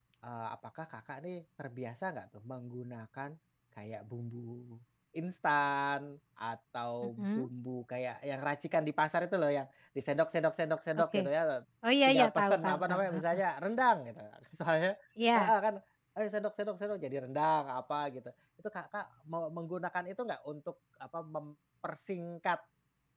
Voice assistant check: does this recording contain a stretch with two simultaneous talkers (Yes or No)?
Yes